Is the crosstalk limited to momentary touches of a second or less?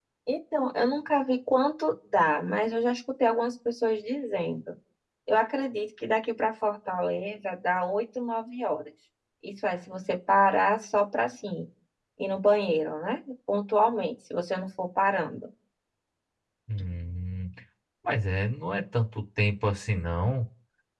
Yes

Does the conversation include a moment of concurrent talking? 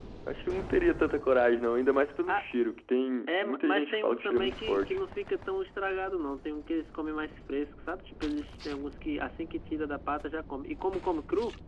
Yes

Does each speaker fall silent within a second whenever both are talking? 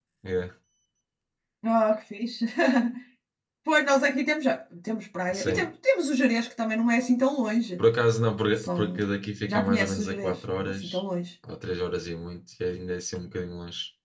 No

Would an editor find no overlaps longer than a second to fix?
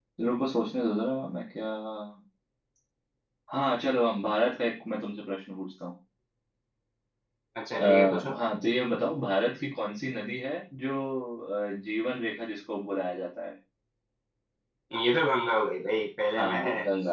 Yes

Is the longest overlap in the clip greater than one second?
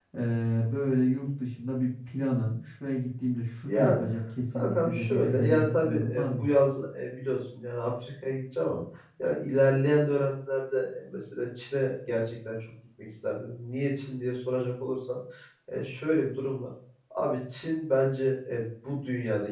Yes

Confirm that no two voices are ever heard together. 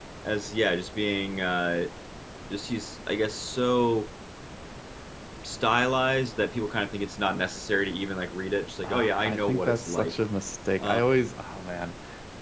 No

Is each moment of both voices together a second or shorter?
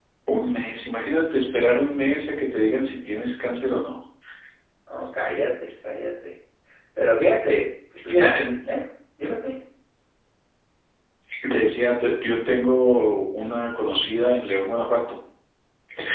Yes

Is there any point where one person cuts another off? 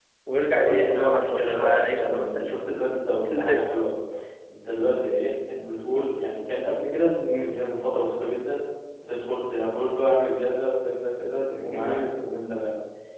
Yes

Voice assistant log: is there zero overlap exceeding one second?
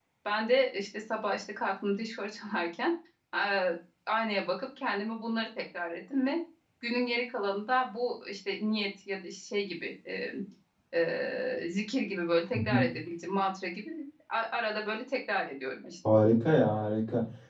Yes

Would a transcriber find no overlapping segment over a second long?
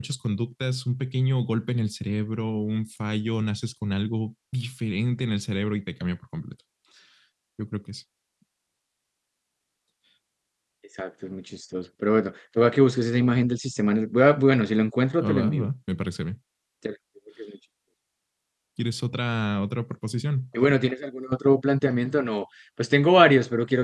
Yes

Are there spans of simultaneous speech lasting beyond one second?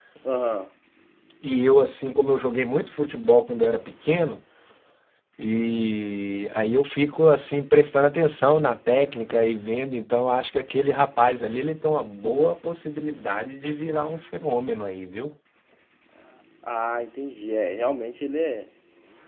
No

